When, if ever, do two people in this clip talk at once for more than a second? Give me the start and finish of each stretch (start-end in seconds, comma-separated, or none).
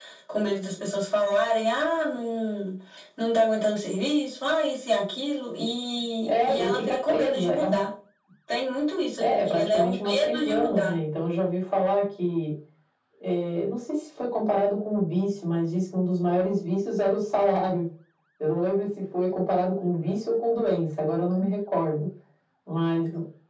6.3-7.8, 9.2-10.9